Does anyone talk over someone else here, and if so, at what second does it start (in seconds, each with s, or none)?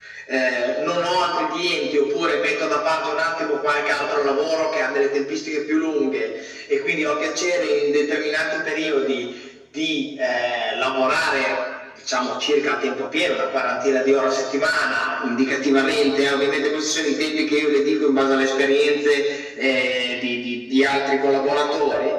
none